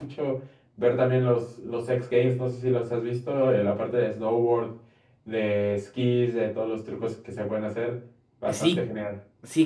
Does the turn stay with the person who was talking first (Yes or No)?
No